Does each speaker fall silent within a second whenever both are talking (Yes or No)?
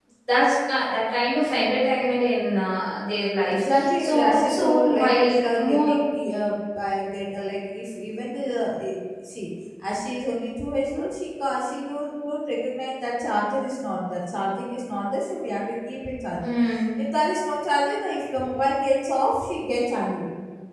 No